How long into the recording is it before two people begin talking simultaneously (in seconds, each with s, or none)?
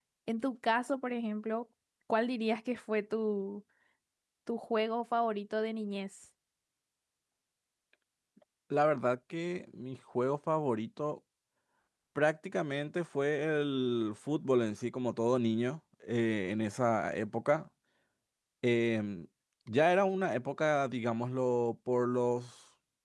none